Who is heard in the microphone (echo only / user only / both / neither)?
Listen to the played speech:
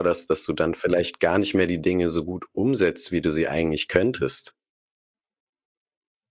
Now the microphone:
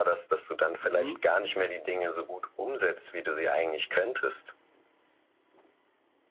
both